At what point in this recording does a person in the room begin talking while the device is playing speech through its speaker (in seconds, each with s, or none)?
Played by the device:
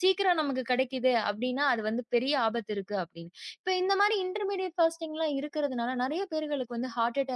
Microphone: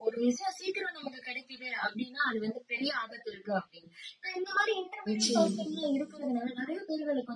5.1 s